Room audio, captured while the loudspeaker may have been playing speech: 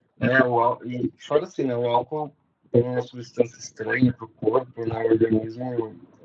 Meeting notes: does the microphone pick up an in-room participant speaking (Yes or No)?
No